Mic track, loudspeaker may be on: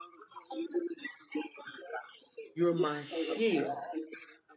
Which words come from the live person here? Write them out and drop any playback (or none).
You're my shield.